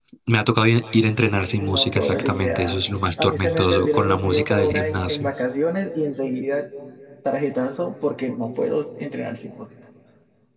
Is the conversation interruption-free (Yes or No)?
No